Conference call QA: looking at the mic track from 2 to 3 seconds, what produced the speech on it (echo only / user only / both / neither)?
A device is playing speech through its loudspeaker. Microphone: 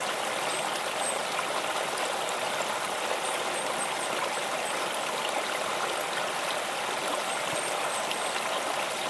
neither